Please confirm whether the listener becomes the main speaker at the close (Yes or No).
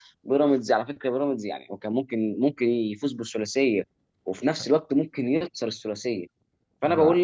No